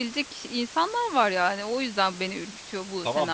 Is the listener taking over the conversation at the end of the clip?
Yes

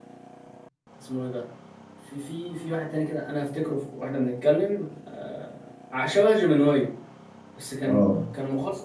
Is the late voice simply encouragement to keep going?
Yes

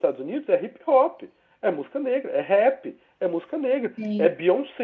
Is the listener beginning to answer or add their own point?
No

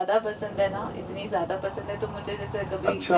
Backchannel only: Yes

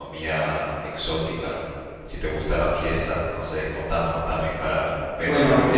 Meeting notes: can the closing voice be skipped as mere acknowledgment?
No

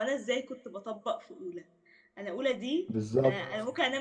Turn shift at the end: No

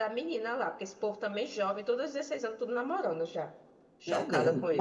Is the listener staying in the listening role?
No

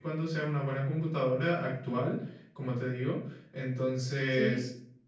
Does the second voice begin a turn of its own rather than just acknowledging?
No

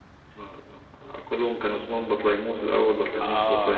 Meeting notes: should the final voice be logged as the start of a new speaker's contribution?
Yes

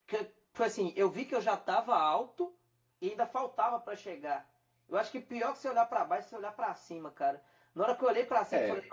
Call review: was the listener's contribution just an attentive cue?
Yes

